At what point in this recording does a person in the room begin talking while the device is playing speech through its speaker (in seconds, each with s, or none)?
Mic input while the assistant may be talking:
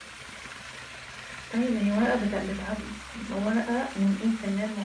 none